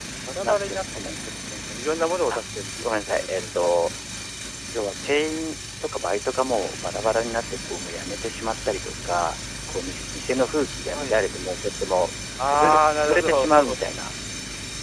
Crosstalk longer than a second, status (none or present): present